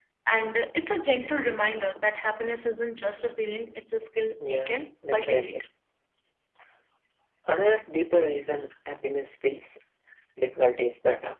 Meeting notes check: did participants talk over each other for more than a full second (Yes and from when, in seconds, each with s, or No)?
Yes, from 4.4 s